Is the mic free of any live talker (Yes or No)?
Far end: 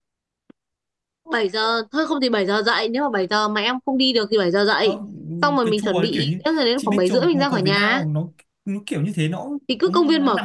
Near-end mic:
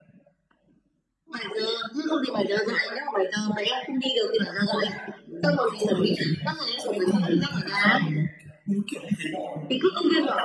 Yes